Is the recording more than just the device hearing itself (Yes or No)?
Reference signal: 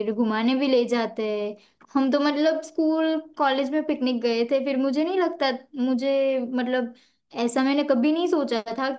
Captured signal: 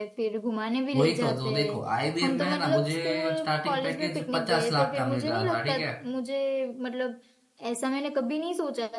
Yes